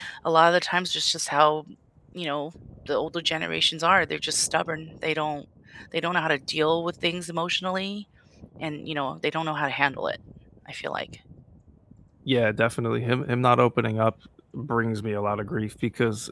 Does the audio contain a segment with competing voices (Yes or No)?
No